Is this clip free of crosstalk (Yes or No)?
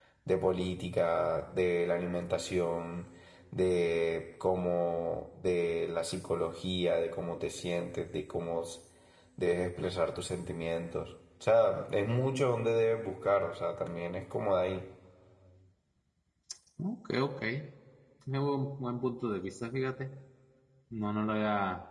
Yes